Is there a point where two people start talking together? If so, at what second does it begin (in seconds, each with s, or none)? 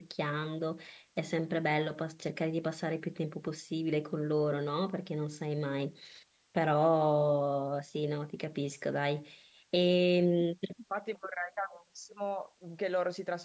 none